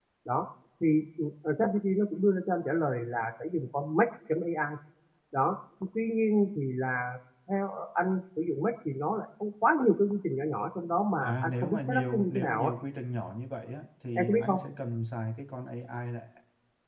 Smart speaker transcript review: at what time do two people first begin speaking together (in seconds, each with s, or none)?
11.2 s